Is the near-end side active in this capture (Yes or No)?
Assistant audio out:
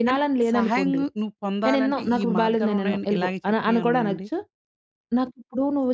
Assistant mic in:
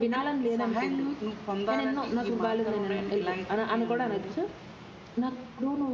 No